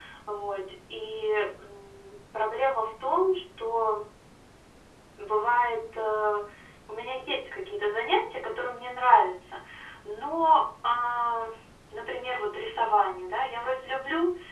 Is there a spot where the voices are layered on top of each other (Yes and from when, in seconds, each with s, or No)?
No